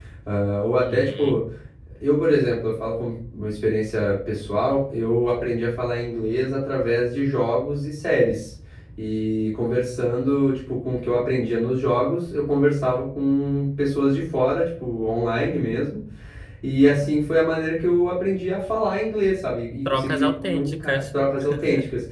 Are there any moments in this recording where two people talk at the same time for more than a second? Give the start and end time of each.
19.9-21.2

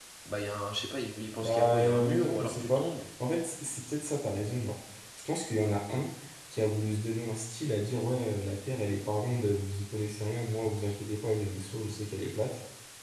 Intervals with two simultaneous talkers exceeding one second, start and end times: 1.4-2.8

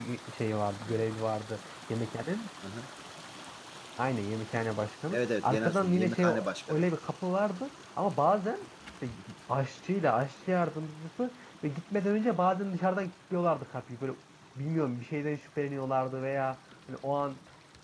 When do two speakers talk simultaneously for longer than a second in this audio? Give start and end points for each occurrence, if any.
5.1-6.8

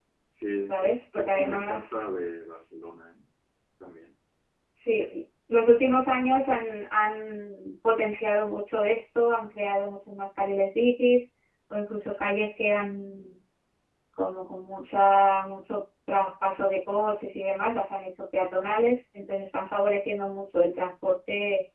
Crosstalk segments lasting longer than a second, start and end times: 0.7-2.0

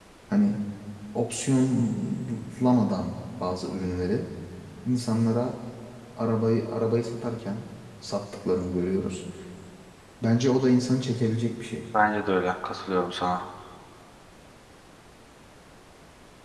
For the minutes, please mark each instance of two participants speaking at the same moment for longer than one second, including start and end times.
none

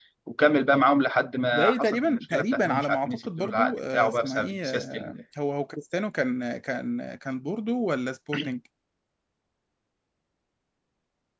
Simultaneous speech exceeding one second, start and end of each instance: 1.5-5.1

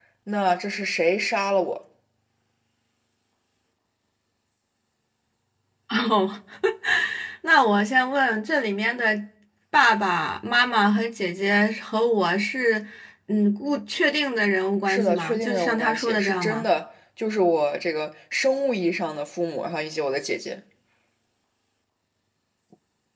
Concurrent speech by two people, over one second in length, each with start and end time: 14.8-16.6

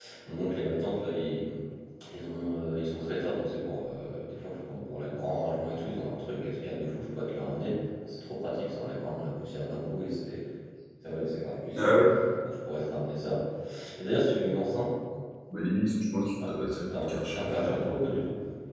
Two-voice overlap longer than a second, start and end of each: 17.0-18.2

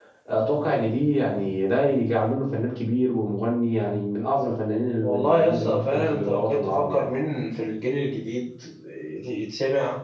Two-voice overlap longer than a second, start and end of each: 5.0-7.0

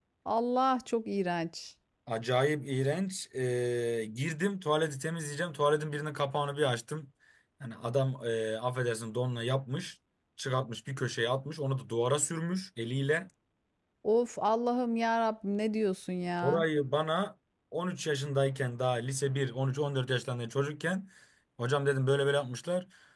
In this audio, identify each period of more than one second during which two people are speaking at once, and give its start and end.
none

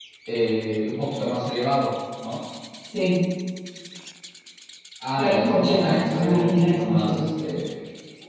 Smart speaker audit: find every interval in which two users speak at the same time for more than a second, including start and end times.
5.2-7.2

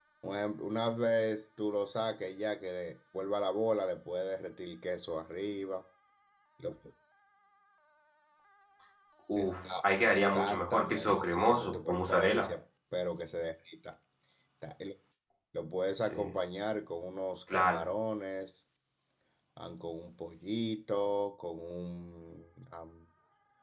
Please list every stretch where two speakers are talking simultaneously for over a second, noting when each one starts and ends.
9.4-12.5

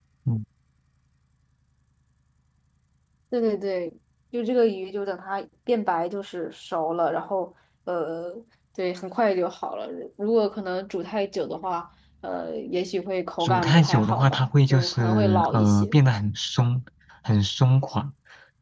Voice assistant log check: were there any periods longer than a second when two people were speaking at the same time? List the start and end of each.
13.4-15.9

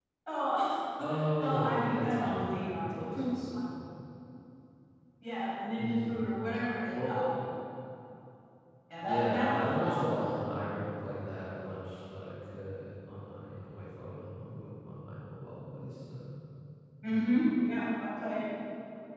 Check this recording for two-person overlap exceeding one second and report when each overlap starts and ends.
1.0-3.6, 9.0-10.5

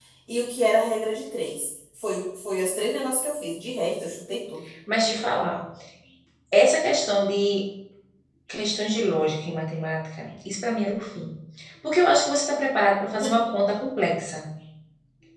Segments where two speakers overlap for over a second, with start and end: none

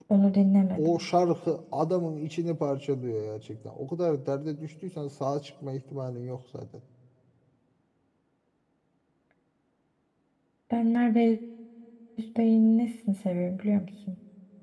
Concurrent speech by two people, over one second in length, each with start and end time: none

